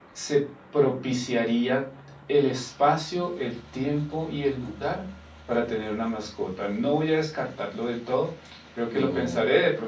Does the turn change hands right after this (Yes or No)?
No